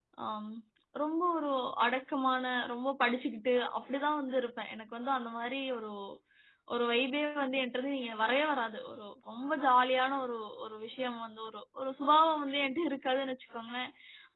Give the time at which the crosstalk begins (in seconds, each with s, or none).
none